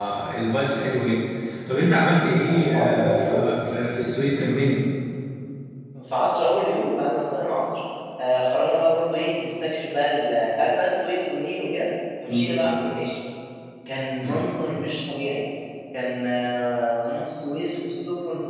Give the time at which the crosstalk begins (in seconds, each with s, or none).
2.2 s